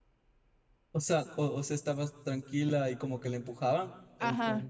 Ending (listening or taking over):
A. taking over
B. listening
A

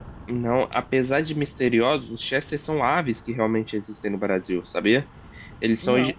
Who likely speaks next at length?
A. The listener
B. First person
B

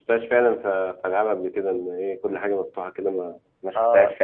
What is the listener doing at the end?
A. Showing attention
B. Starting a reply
B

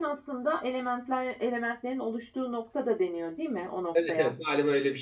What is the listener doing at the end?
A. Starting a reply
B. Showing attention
A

